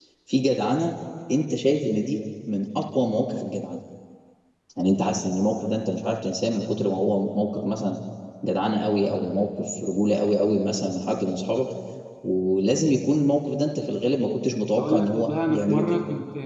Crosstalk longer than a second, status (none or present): present